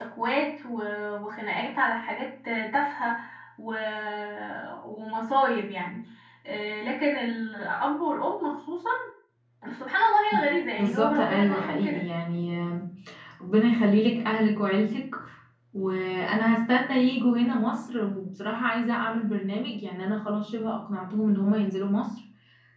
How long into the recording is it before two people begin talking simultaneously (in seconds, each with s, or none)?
10.8 s